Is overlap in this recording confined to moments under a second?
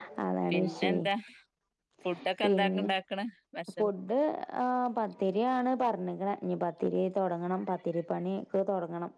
Yes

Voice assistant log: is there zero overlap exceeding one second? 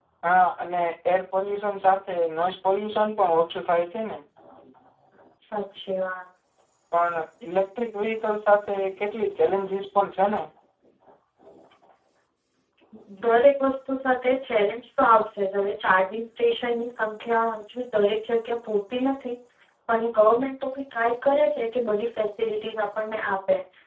Yes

